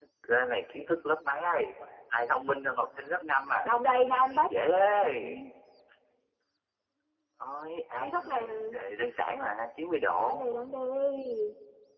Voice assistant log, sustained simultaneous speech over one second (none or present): none